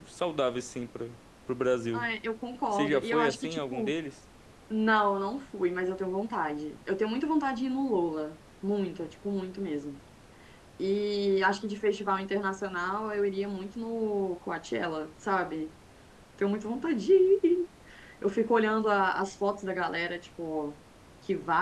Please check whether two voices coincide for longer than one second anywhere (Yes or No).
Yes